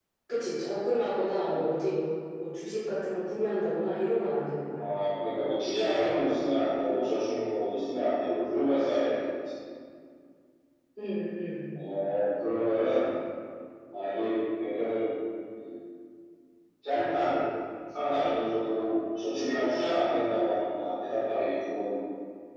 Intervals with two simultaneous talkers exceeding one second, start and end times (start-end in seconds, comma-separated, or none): none